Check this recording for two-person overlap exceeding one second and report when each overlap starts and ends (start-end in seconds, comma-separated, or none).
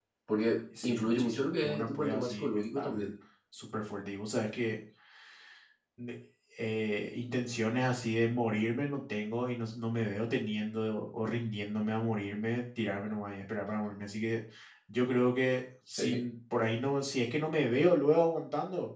0.8-3.1